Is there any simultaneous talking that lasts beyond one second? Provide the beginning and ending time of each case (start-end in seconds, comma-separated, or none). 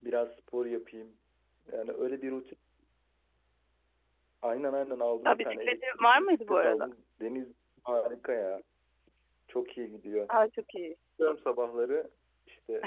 5.3-6.9